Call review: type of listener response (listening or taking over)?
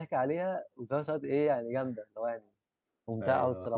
taking over